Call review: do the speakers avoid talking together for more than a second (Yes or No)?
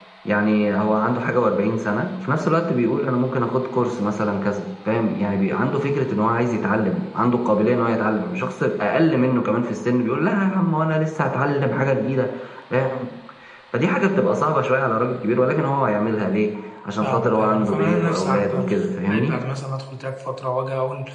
No